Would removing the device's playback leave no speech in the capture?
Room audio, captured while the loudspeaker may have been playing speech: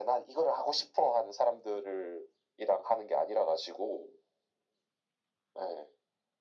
Yes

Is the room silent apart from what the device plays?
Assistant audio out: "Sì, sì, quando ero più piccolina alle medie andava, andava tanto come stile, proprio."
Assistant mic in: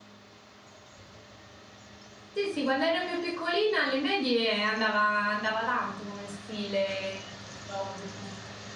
Yes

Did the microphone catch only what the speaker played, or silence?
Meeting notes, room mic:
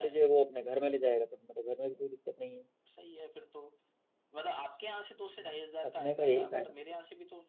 No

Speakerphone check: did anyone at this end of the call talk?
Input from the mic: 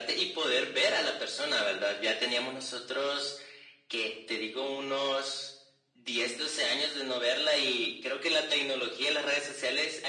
No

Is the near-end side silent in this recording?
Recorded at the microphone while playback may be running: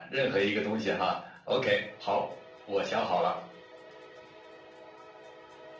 Yes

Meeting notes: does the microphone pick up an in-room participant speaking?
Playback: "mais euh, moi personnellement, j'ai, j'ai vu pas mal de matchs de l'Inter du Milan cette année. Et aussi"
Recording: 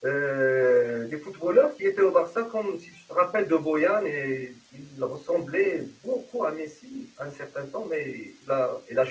Yes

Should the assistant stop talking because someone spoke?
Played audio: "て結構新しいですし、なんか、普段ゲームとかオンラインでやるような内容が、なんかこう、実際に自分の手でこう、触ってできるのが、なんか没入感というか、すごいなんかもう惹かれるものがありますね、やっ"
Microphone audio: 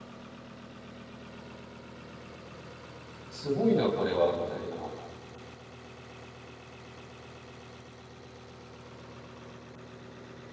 Yes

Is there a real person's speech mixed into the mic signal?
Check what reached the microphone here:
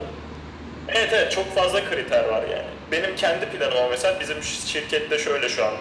No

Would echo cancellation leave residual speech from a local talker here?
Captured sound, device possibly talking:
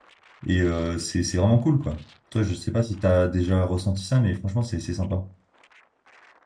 Yes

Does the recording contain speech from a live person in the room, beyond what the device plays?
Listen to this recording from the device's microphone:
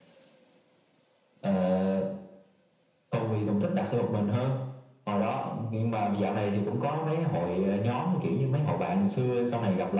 No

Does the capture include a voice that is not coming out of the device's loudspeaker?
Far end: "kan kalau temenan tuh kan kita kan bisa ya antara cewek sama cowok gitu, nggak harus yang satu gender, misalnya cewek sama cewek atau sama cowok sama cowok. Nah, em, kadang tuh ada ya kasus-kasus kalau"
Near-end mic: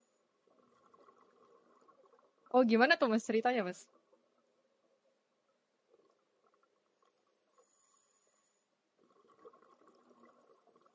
Yes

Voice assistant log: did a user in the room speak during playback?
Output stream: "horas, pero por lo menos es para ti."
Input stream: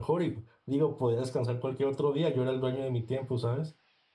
Yes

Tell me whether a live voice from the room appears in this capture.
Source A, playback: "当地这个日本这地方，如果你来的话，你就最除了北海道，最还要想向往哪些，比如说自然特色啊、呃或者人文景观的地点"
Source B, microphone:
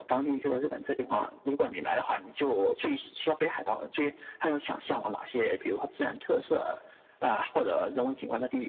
No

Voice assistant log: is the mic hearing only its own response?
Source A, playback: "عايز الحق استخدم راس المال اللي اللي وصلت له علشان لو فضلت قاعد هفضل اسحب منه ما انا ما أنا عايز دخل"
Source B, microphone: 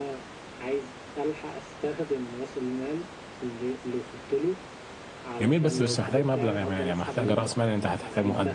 No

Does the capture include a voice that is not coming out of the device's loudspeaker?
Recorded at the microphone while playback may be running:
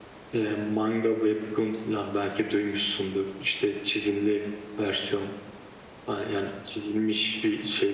No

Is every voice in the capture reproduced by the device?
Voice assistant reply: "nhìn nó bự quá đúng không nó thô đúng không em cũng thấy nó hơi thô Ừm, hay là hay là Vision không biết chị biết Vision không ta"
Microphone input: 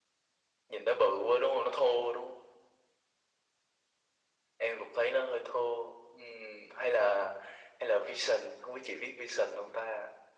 Yes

